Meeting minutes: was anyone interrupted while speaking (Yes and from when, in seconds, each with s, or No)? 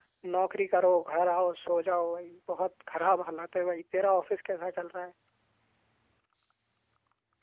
No